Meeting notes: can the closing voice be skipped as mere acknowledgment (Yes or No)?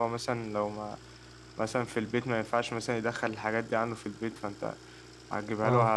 Yes